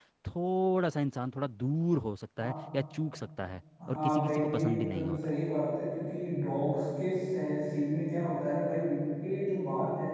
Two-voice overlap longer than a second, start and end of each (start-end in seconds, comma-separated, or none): 3.9-5.3